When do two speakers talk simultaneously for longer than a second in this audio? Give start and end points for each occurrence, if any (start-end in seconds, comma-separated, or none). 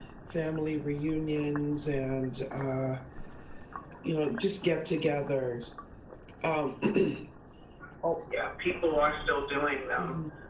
none